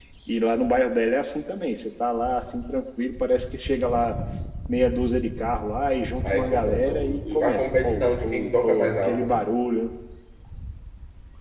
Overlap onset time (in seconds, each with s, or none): 6.2 s